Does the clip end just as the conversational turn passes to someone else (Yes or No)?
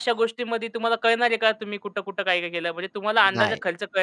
No